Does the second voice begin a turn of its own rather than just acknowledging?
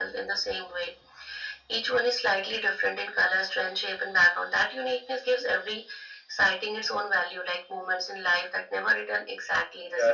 Yes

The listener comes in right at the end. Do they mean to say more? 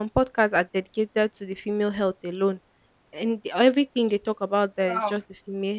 No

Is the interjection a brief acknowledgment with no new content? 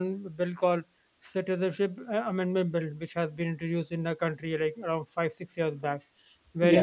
Yes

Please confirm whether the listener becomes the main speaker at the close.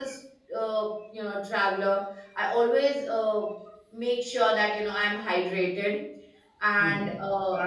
Yes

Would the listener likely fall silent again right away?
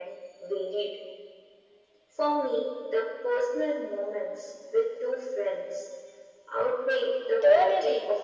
No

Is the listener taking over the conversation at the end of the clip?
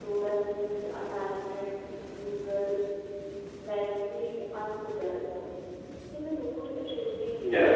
No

